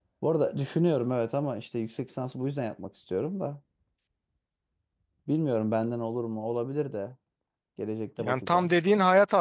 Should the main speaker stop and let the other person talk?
Yes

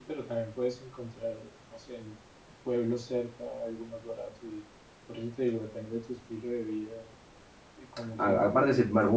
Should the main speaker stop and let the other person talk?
Yes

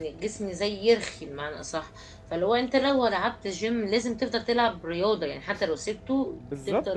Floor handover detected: Yes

